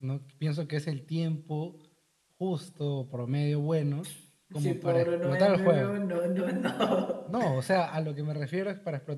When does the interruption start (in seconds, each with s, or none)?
4.6 s